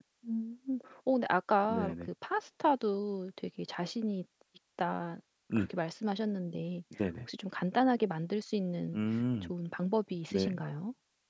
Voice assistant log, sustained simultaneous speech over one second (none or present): none